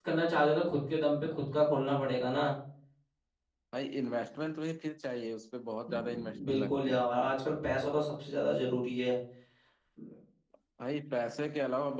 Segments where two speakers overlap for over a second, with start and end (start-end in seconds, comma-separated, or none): 5.9-7.1